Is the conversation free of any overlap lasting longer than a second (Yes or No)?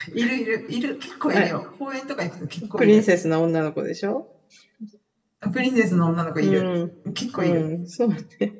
Yes